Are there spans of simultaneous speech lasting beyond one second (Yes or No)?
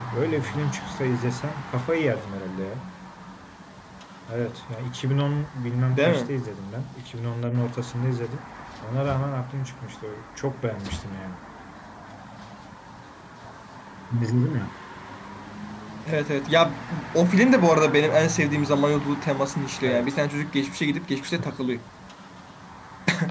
No